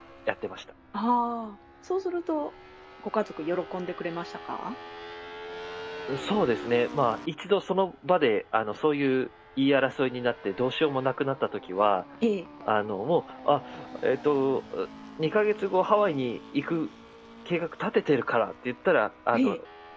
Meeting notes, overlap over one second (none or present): none